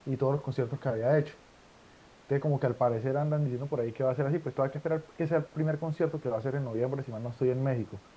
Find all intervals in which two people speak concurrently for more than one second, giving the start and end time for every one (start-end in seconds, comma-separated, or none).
none